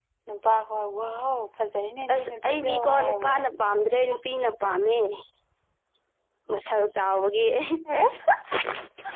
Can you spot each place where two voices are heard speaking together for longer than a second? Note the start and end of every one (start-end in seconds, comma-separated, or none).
2.1-3.4